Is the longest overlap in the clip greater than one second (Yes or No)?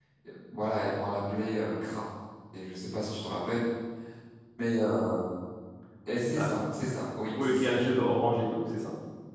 No